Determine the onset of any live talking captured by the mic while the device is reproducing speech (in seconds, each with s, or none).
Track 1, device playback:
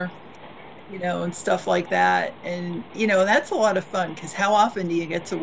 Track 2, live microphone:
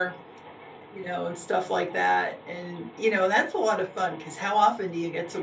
none